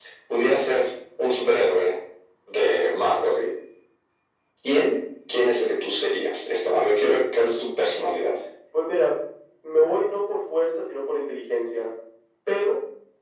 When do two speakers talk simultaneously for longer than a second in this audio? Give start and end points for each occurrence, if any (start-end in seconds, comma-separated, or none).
none